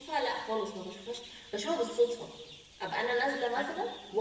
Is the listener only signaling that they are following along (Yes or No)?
Yes